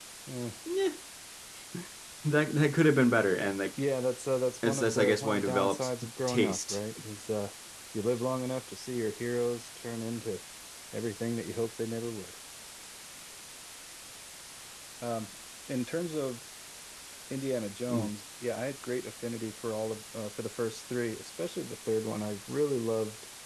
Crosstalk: present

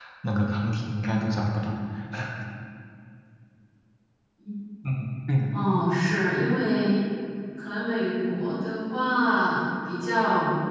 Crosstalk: none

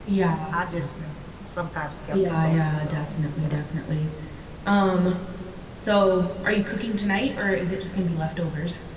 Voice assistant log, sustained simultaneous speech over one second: present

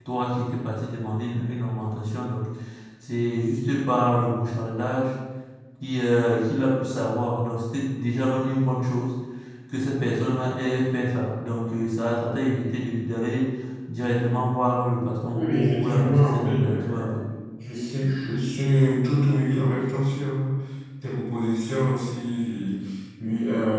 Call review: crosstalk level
present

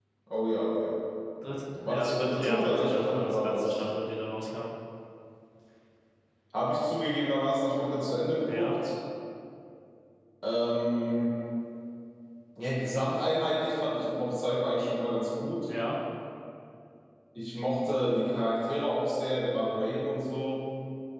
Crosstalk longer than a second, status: present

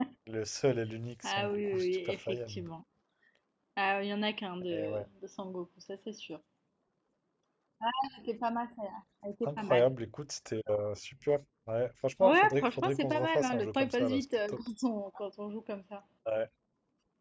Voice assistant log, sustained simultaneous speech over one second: present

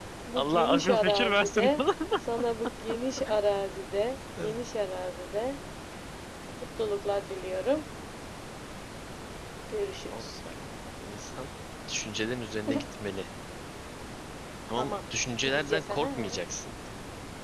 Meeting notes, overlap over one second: present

